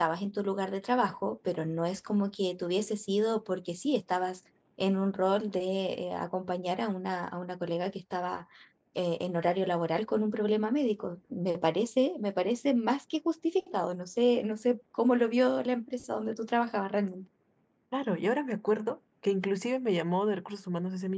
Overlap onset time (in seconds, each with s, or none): none